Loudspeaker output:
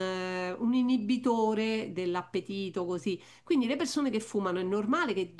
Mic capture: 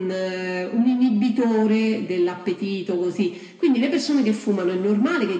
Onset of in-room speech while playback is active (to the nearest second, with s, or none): none